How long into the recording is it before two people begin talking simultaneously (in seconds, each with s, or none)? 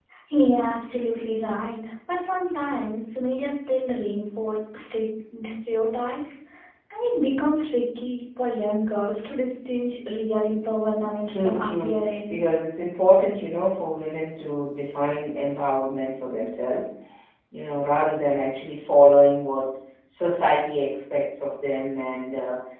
11.0 s